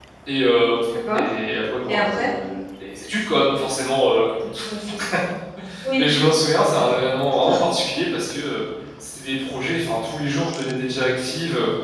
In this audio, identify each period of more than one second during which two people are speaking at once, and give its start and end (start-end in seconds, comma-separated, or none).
none